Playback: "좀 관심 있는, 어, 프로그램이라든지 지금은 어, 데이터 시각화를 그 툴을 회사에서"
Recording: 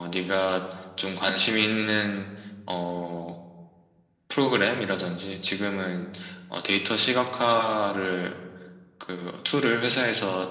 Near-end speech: none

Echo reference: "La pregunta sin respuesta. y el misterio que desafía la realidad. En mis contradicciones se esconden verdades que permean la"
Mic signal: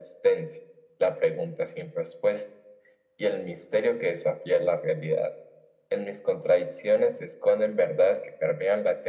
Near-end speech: none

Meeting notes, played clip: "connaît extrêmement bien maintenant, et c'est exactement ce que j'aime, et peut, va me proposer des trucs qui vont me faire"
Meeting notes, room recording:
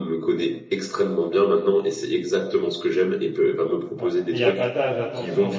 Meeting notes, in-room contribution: present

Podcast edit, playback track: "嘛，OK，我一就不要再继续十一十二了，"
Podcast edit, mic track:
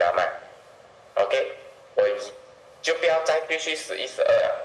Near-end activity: none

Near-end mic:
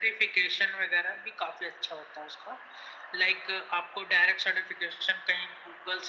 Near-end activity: none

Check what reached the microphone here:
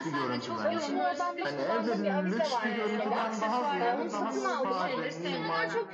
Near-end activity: present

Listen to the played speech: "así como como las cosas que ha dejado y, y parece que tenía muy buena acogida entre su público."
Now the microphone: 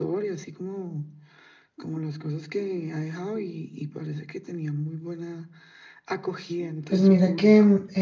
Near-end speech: present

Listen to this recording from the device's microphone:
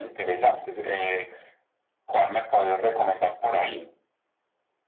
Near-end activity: none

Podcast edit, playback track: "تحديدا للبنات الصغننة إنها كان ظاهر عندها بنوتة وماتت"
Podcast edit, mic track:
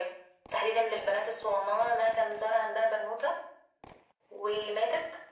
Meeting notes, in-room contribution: none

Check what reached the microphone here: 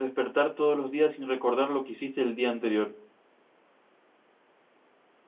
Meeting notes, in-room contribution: present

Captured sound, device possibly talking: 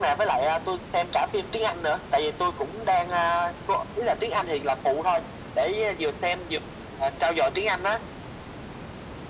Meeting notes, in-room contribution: none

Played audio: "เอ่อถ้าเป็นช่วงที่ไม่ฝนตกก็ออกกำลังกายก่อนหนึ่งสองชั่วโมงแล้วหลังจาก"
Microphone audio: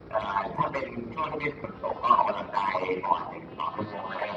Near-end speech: none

